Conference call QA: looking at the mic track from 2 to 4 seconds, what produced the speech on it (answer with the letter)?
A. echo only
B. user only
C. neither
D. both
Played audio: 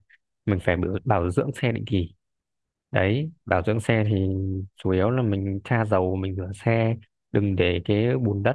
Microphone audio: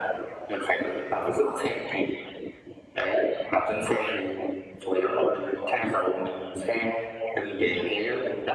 A